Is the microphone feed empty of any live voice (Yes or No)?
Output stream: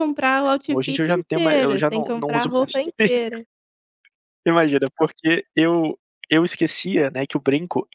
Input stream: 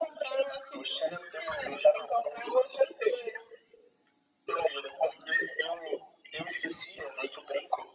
Yes